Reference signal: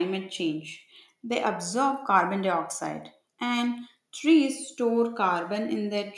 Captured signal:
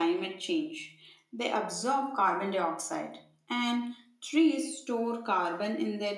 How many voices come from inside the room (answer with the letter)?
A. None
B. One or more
A